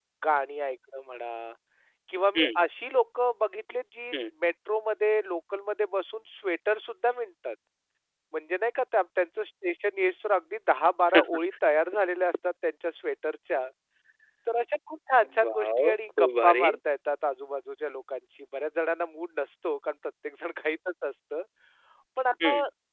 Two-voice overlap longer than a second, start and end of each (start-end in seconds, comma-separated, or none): 15.4-16.7